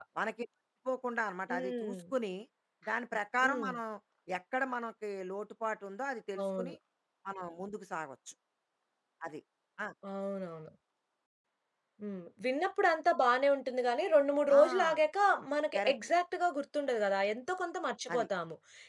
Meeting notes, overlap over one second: none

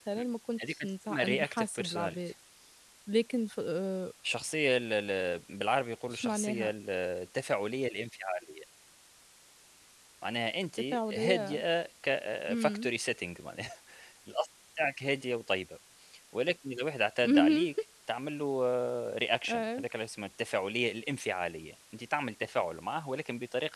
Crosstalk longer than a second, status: present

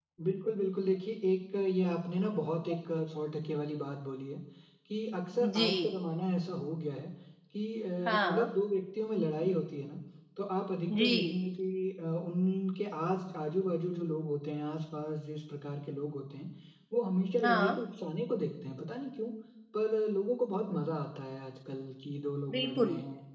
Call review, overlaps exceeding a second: none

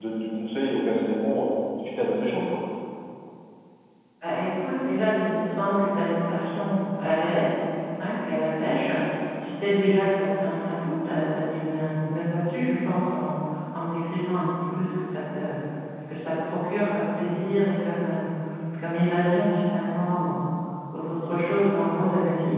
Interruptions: none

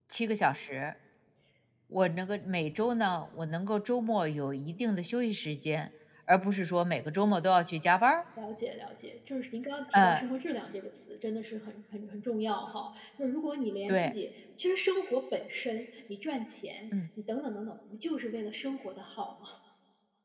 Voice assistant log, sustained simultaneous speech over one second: none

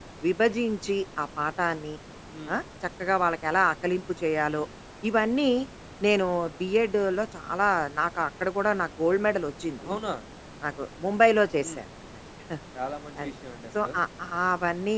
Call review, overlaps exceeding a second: none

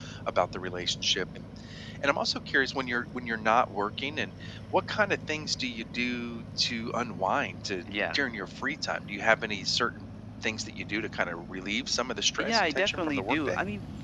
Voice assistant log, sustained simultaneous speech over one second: present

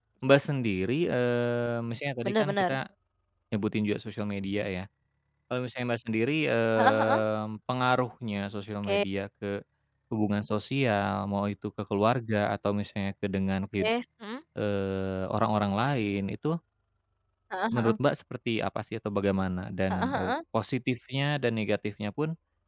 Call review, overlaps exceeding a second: none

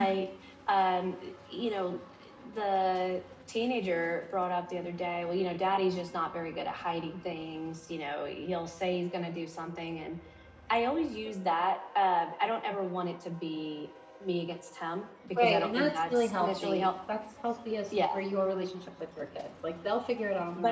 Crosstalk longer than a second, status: present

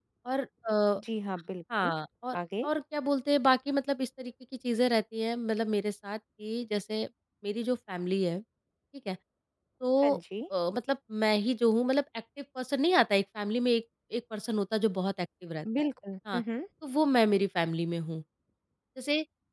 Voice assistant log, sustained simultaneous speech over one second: none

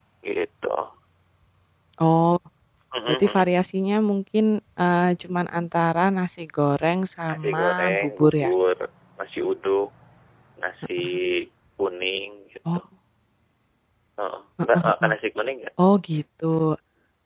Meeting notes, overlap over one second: present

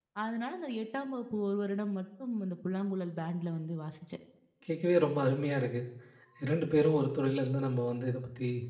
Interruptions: none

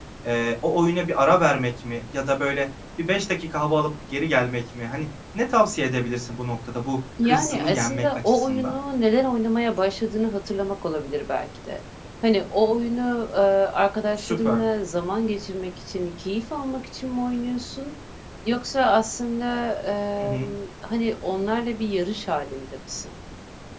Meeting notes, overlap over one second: present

